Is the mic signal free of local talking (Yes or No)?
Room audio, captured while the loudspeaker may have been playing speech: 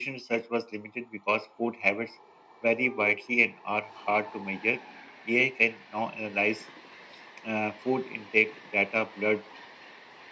Yes